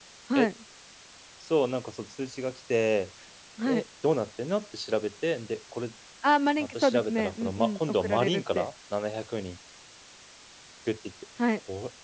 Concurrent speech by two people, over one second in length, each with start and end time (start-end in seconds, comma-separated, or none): 6.6-8.7